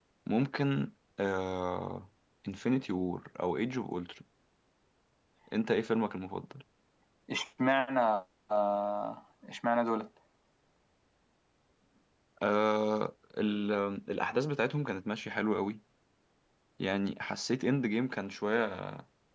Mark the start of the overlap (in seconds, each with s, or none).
none